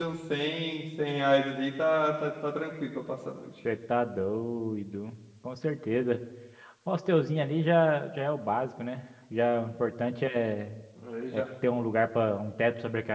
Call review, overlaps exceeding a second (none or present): none